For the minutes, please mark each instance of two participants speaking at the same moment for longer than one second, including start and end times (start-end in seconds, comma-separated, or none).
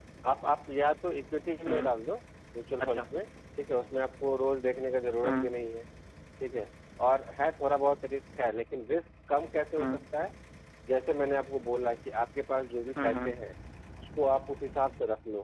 none